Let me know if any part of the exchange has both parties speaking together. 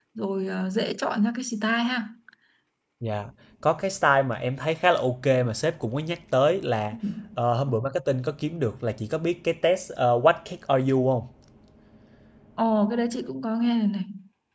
No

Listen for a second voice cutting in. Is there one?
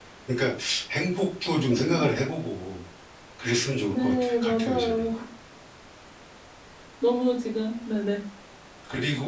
Yes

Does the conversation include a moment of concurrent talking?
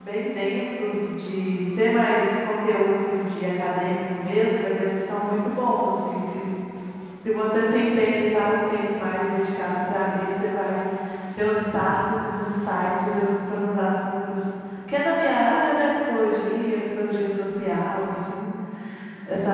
No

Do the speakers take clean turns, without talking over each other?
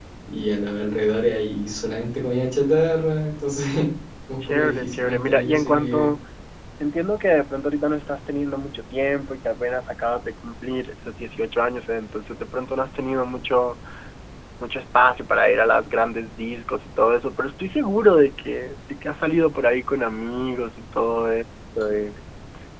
No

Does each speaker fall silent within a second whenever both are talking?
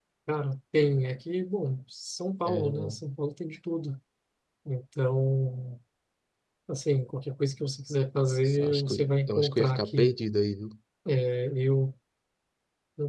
No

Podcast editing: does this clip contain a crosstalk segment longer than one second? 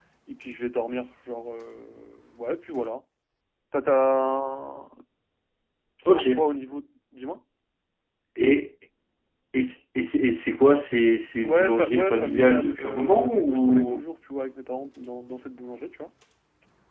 Yes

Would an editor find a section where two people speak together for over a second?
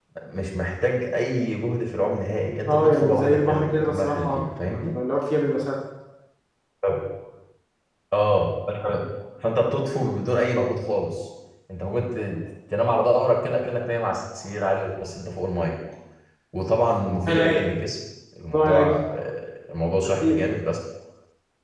Yes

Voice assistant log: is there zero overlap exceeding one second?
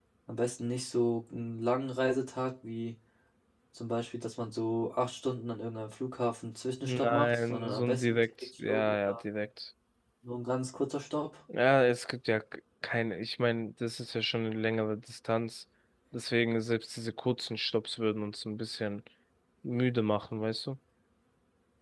No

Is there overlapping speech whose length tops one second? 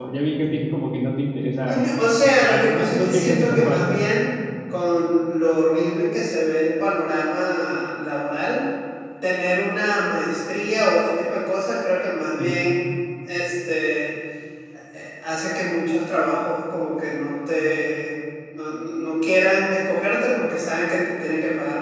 Yes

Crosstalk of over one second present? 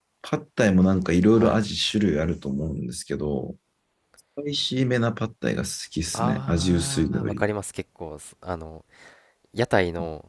Yes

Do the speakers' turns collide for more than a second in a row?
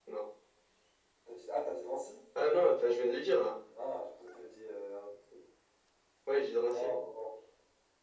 No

